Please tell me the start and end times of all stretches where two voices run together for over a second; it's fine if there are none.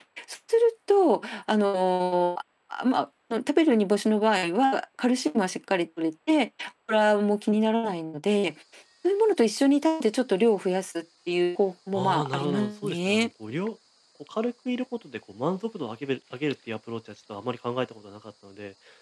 11.9-13.3

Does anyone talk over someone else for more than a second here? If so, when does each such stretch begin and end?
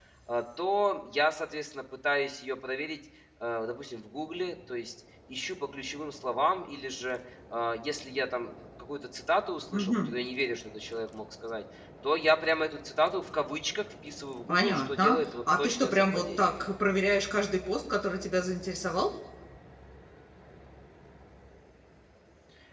14.5-16.5

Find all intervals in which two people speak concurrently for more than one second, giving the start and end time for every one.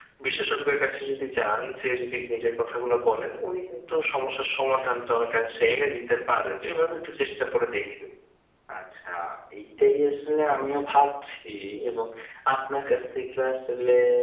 none

